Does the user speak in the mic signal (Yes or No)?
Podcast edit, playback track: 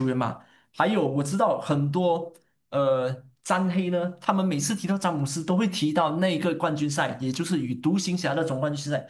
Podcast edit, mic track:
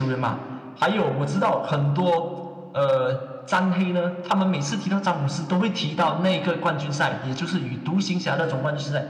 No